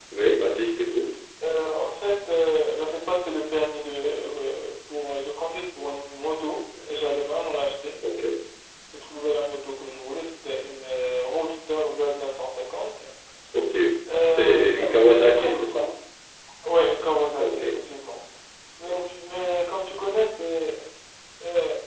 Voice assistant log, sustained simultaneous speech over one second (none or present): present